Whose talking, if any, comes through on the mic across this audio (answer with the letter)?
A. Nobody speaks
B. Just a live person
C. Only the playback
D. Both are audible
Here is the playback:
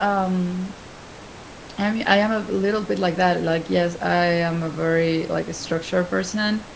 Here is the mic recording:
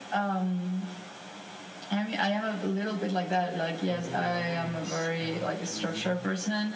D